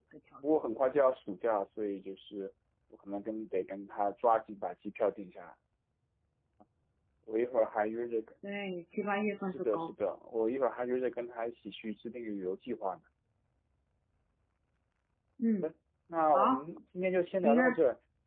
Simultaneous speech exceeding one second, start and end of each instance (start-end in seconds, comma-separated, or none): none